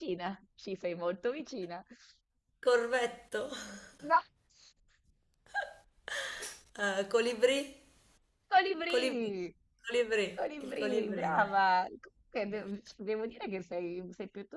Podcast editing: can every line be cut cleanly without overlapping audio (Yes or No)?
No